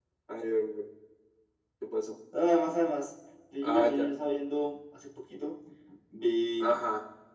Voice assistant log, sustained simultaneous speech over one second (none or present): none